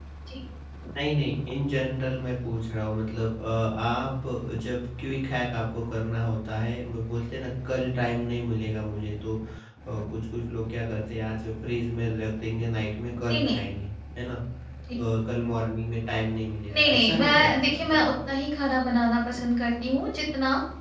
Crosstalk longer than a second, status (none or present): present